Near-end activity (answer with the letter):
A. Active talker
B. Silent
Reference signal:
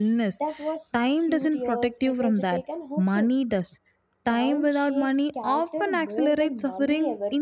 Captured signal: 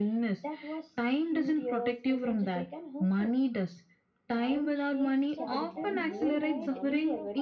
A